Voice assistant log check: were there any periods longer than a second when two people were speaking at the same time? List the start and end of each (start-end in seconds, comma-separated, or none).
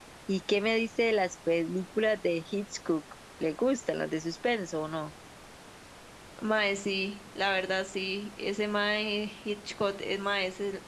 none